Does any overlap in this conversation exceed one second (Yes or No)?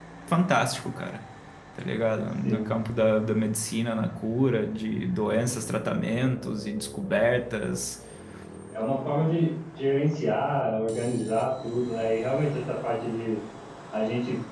No